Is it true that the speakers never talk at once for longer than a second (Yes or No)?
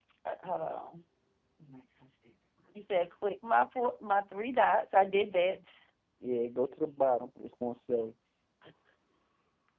Yes